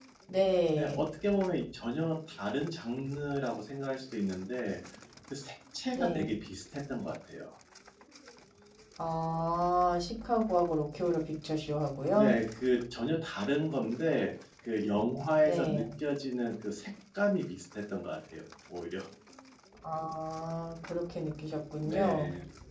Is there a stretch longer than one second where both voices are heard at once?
No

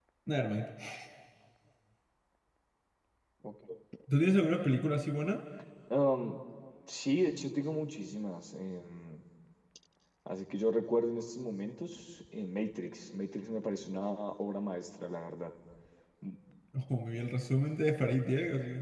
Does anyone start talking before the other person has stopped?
No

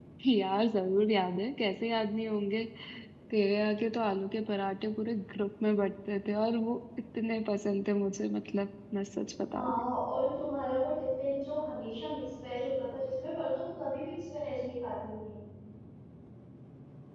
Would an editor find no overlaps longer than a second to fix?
Yes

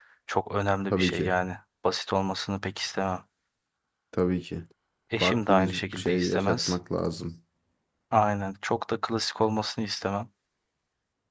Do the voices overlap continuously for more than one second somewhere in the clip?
Yes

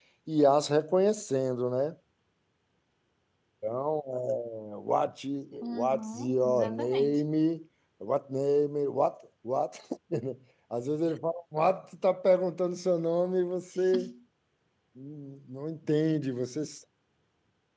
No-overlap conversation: No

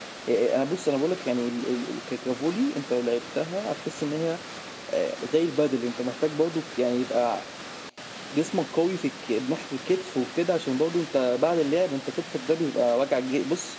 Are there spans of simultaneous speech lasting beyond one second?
No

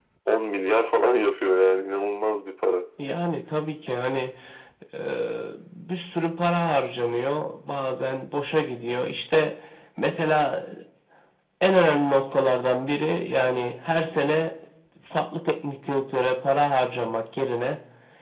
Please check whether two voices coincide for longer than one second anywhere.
No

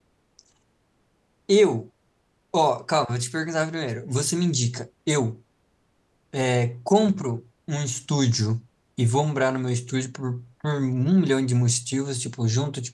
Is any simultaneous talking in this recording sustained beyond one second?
No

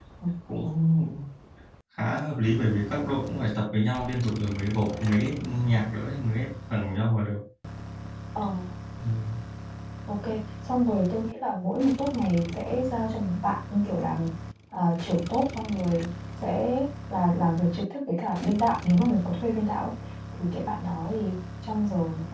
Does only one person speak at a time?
Yes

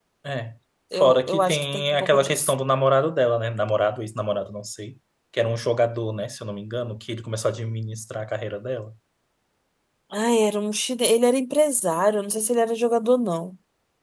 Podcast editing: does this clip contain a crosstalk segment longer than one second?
Yes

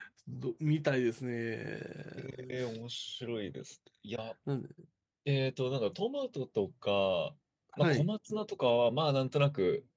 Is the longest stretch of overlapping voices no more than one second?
Yes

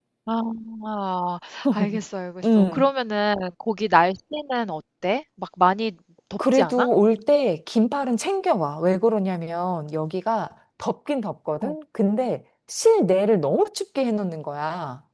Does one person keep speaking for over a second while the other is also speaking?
No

